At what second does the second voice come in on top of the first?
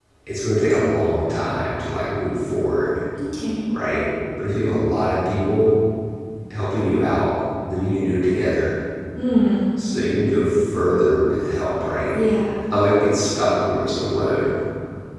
none

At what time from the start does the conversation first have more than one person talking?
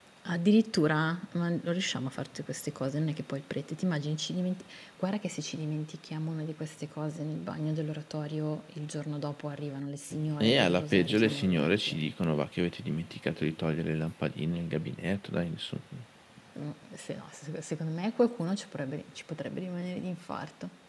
10 s

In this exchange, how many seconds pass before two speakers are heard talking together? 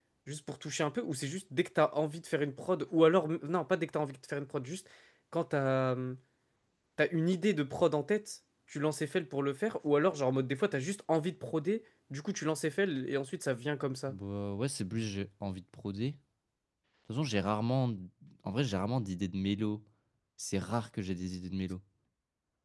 none

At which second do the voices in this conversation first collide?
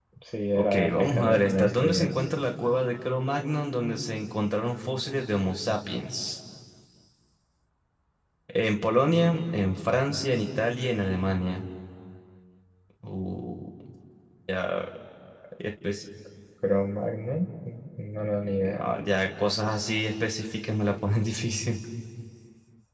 1 s

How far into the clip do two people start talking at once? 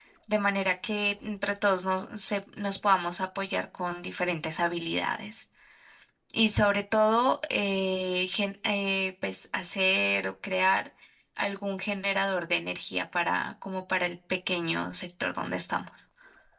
none

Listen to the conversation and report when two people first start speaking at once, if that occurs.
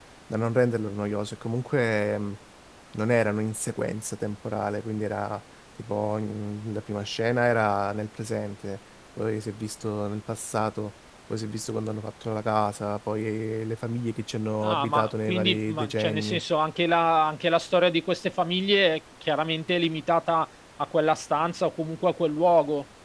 15 s

